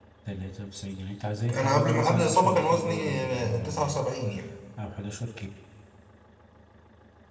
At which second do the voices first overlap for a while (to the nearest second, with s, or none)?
1 s